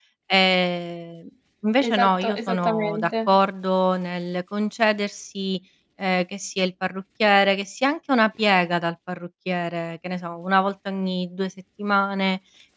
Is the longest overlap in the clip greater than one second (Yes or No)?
Yes